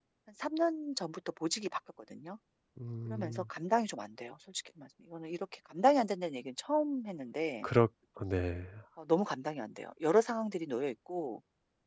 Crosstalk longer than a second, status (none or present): none